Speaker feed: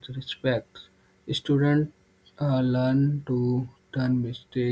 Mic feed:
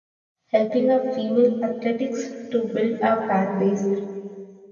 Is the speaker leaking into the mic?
No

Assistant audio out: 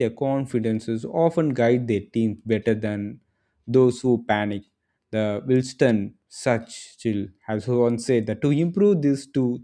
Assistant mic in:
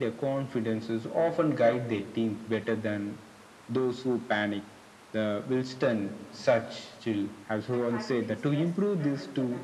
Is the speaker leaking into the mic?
Yes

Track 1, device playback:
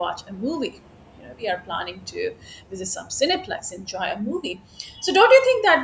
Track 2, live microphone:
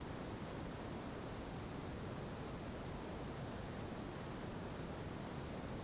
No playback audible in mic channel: Yes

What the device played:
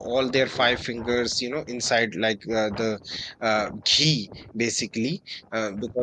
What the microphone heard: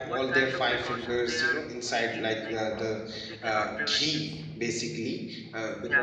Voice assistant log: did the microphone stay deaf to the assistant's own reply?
No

